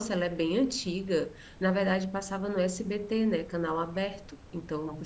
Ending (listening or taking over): listening